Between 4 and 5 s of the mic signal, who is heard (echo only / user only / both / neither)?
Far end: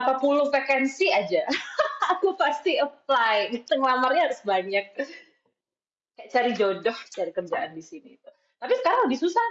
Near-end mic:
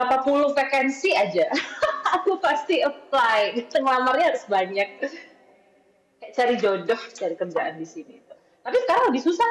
echo only